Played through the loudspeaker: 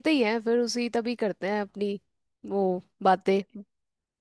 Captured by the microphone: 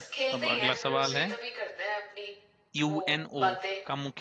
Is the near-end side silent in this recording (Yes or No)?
No